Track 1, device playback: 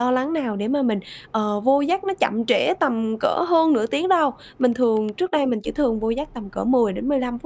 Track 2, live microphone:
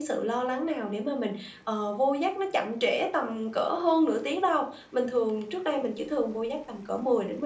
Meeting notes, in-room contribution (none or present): none